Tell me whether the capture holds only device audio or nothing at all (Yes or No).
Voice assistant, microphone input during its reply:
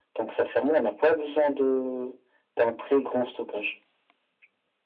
Yes